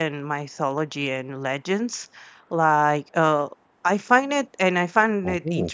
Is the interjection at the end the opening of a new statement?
No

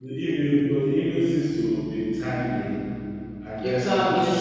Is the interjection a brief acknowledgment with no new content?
Yes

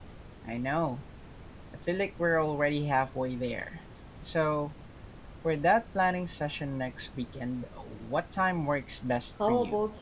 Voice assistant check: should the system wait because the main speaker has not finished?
No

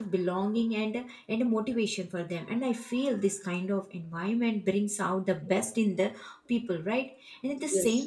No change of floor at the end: Yes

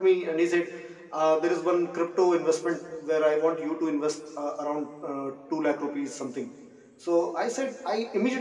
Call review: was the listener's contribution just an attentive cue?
Yes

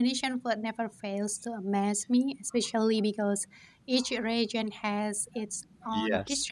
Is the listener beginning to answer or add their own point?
No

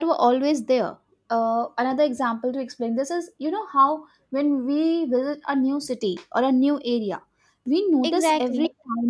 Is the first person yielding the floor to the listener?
No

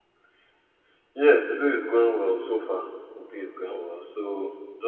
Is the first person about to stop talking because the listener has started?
No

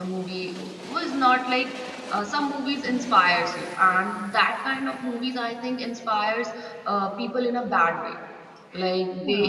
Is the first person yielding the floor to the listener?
No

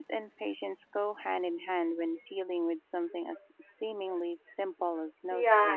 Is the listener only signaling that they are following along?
No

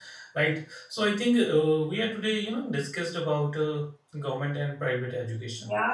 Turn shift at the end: Yes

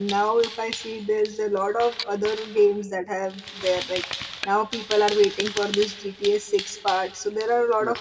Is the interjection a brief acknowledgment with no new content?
Yes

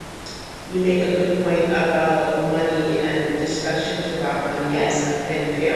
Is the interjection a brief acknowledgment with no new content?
Yes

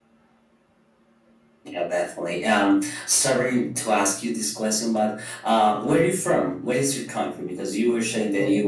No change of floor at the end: Yes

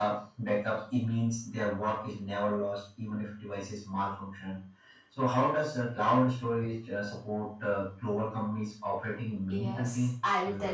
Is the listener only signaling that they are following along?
No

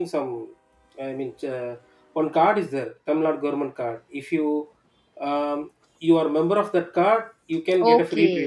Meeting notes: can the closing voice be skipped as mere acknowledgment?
No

